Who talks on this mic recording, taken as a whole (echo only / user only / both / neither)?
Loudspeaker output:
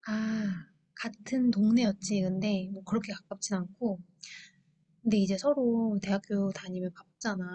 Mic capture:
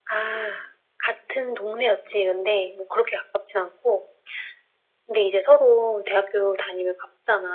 echo only